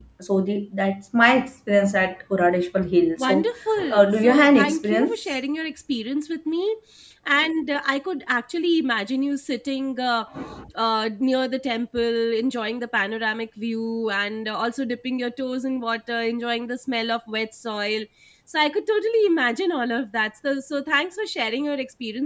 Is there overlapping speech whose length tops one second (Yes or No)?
Yes